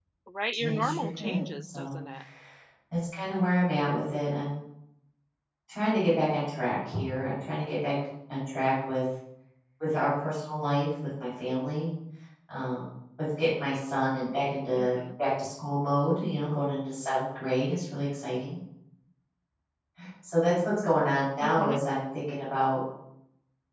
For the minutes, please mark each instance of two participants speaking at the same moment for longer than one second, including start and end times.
0.6-1.9

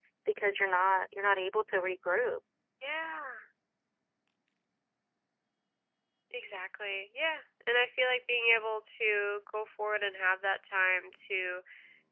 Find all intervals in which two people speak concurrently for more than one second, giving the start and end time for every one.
none

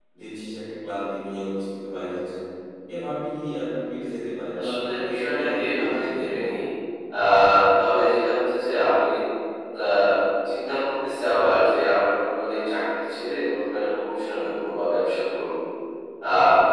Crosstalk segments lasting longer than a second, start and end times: 4.6-6.3

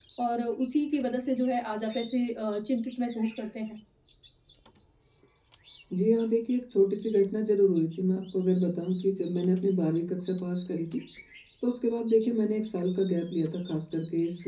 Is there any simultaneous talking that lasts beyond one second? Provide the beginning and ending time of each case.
none

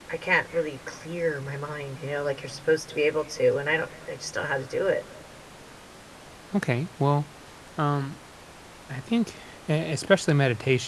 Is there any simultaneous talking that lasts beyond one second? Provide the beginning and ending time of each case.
none

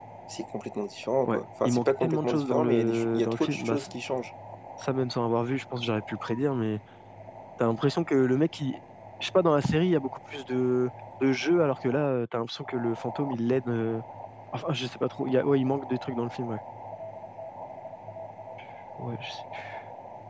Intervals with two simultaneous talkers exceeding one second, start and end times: 1.3-3.9

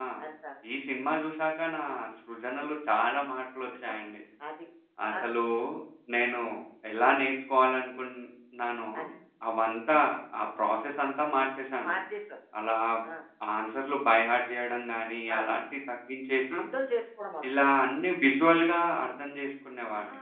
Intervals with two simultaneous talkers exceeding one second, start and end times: none

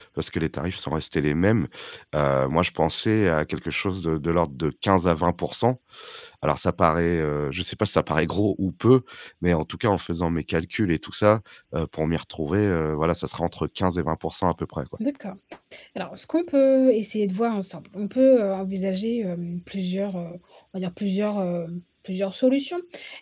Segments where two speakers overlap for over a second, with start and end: none

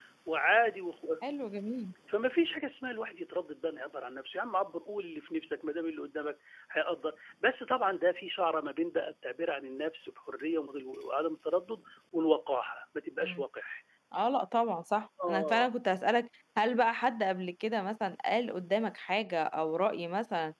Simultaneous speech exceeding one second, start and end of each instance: none

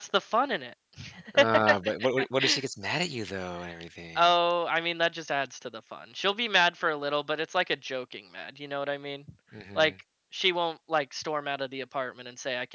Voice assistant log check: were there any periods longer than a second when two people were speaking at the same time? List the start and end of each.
none

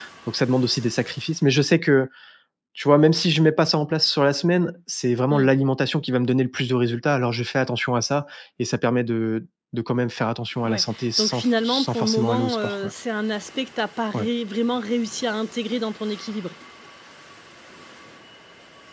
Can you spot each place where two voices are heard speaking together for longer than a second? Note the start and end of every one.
10.6-12.7

